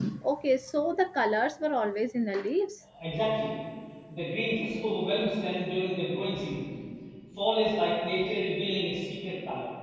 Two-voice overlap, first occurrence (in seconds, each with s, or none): none